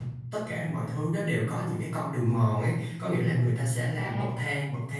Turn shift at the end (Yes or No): No